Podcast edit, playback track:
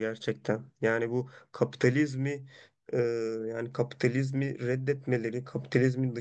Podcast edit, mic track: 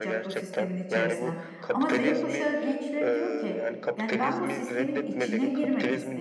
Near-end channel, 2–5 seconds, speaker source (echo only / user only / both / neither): both